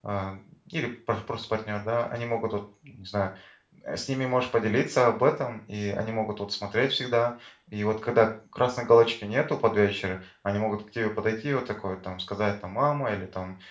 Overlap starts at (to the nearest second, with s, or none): none